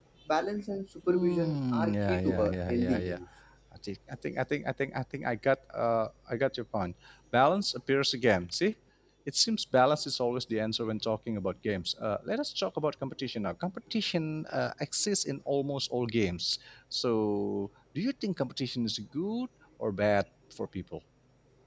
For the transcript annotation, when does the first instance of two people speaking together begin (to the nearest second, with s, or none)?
1 s